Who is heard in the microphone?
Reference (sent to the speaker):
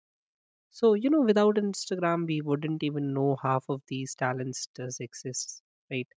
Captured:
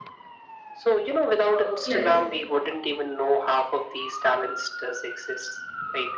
both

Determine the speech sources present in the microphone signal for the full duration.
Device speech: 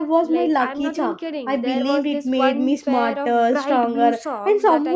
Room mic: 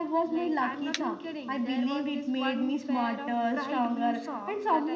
echo only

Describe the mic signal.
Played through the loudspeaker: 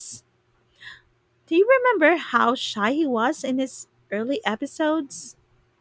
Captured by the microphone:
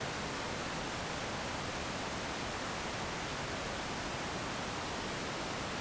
neither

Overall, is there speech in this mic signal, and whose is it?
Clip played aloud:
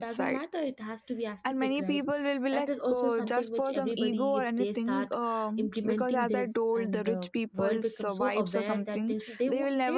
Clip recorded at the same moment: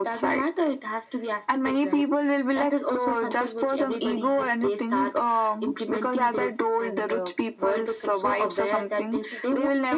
echo only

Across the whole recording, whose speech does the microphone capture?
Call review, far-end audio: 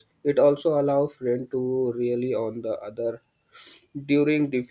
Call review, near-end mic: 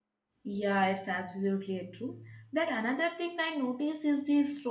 user only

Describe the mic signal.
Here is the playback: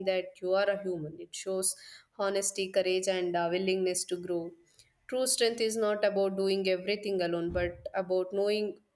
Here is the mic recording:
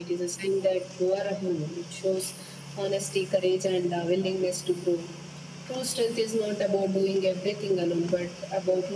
echo only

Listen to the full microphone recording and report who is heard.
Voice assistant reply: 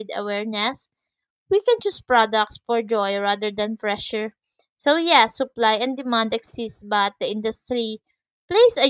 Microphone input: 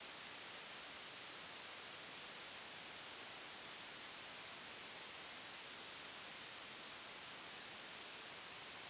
neither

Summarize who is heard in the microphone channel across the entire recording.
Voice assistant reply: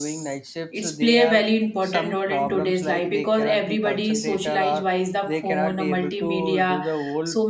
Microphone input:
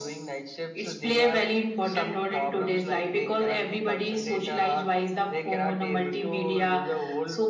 echo only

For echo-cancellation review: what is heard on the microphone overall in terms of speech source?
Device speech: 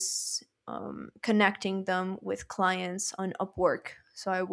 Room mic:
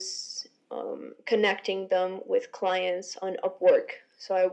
echo only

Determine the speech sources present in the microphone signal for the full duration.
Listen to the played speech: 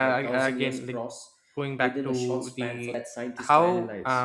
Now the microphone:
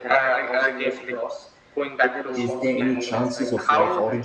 both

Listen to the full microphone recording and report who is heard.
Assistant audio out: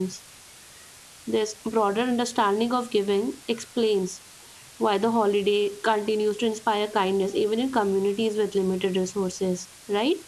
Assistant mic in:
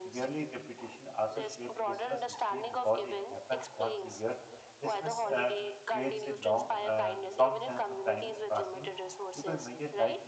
both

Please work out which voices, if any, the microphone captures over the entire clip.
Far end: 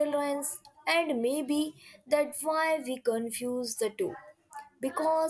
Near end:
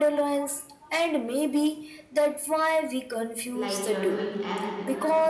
both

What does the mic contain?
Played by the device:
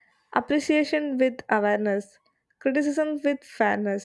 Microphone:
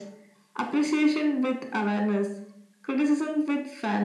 echo only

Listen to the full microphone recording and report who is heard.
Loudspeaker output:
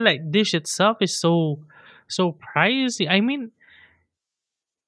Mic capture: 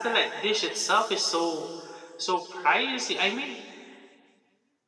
echo only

